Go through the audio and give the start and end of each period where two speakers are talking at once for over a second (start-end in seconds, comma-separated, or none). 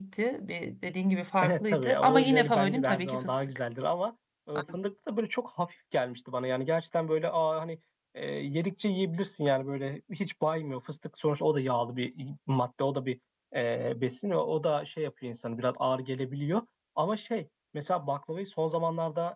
1.4-3.6